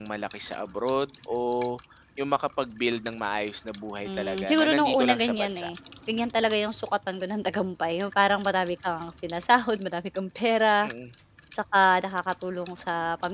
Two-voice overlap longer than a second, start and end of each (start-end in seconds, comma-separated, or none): 4.0-5.7